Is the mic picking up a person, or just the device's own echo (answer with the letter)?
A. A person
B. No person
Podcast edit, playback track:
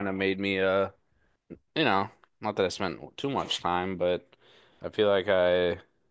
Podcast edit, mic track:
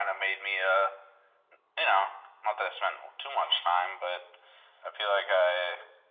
B